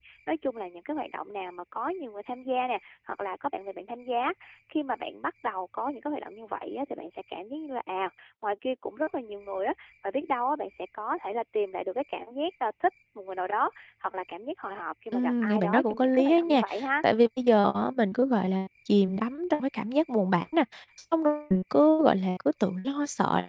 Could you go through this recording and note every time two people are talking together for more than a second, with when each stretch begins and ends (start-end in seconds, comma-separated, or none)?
15.1-16.6